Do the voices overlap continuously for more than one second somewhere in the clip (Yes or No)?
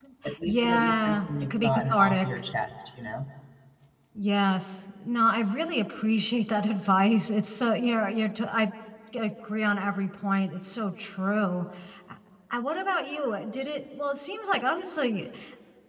Yes